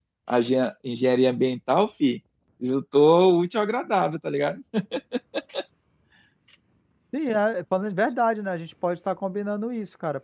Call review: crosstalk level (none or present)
none